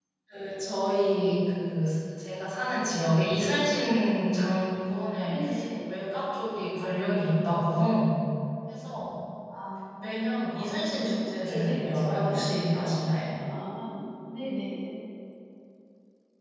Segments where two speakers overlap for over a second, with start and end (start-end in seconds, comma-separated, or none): 10.6-12.9